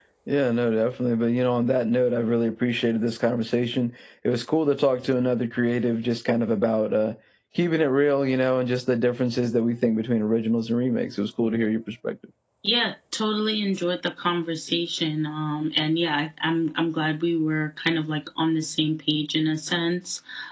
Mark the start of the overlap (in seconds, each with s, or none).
none